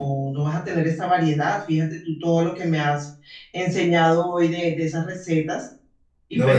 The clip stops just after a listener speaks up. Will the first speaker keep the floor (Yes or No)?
No